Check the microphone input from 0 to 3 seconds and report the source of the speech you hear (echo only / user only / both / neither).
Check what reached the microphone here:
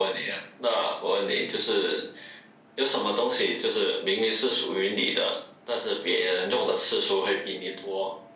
echo only